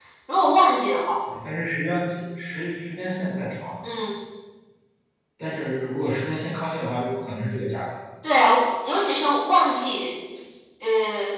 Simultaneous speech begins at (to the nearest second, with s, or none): none